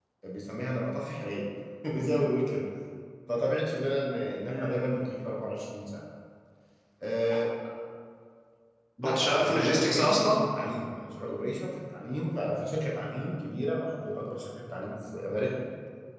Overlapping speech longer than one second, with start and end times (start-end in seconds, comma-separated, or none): 9.0-10.4